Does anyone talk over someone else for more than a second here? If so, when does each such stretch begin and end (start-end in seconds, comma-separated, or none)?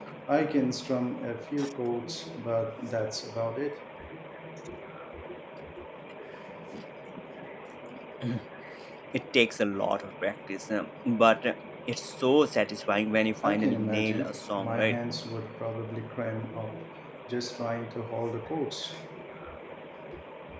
13.4-15.0